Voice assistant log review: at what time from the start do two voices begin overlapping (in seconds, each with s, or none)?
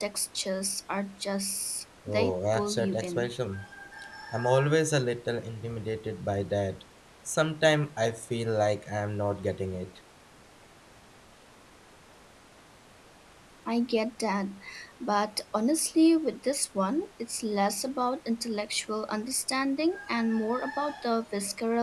2.1 s